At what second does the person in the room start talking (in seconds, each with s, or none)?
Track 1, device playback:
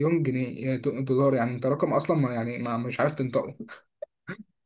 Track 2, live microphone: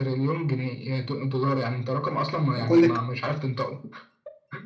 2.6 s